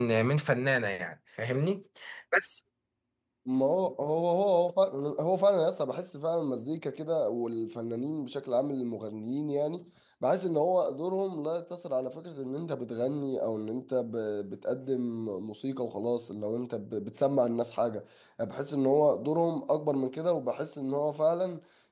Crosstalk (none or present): none